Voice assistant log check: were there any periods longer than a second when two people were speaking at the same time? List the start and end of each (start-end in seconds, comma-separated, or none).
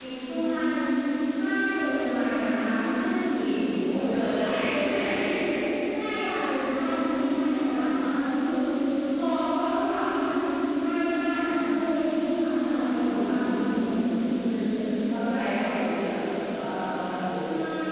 none